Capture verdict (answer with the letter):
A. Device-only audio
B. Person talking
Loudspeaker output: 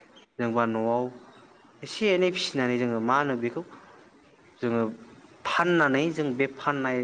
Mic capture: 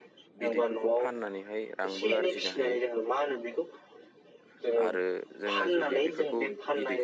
B